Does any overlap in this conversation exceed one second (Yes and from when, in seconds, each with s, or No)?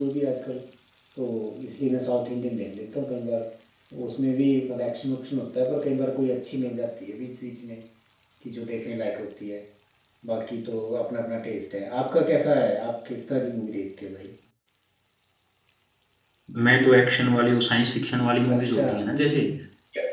No